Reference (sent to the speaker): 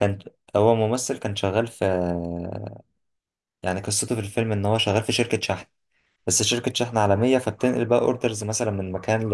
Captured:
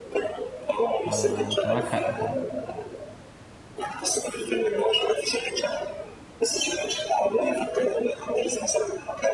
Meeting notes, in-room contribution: present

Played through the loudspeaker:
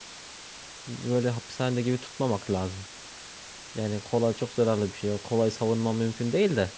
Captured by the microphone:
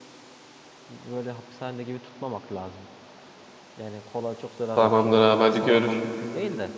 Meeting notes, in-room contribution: present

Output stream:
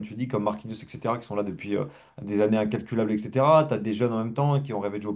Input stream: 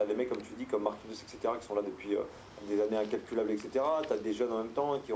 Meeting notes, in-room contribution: none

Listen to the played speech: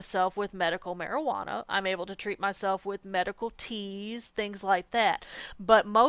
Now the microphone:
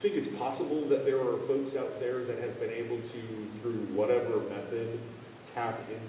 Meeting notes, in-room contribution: present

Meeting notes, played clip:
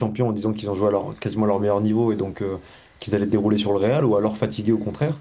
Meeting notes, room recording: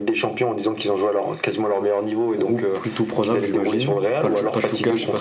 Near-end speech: present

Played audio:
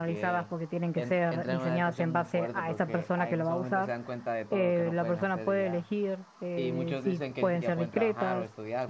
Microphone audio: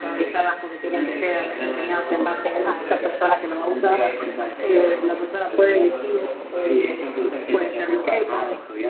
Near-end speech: present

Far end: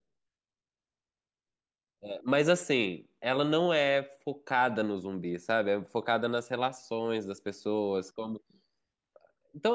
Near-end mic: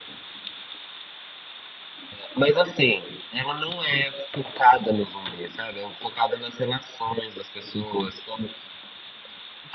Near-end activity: none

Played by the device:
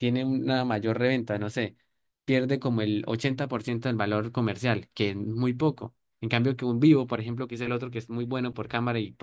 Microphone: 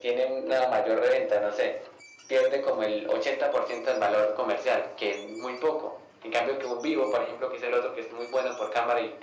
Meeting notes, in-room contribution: none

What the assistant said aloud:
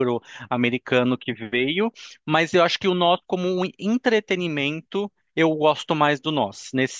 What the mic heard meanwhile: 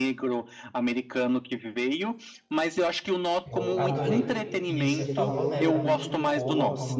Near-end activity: present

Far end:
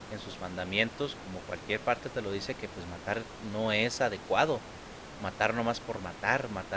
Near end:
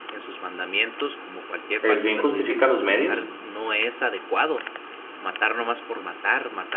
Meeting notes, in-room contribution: present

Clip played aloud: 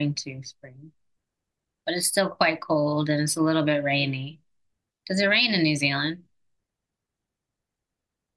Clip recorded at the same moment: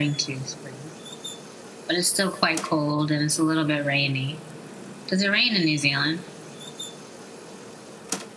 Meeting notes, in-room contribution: none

